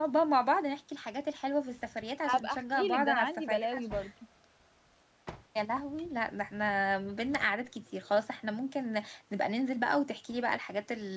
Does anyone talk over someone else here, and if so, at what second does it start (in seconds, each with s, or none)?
2.2 s